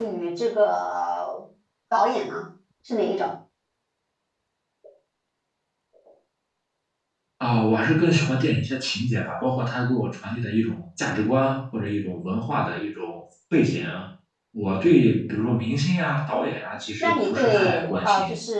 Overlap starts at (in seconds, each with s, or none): 17.0 s